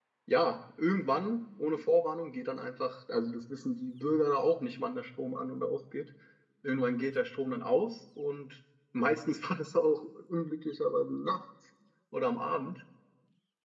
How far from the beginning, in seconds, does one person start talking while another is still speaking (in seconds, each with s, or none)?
none